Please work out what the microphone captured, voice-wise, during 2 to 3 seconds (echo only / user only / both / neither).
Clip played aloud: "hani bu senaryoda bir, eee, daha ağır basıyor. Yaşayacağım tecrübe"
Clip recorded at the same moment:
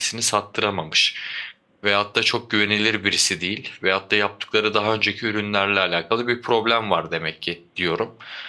user only